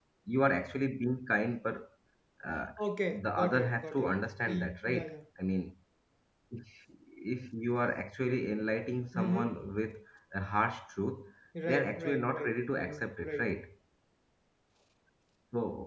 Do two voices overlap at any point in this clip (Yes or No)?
Yes